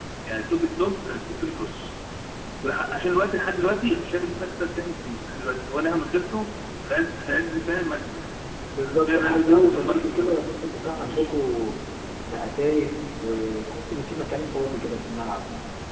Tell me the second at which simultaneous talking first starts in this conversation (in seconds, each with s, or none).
8.7 s